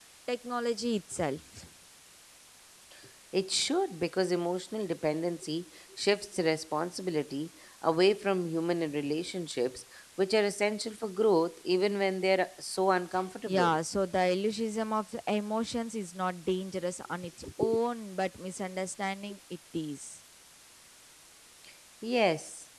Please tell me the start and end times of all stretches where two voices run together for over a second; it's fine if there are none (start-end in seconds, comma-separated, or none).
none